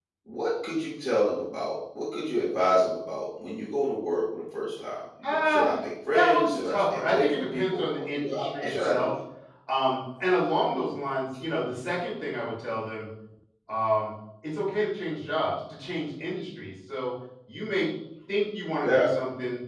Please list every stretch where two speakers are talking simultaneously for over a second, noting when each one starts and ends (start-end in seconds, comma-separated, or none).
6.1-9.1